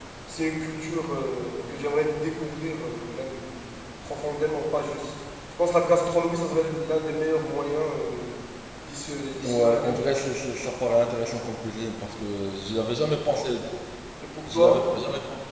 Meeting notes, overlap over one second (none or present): none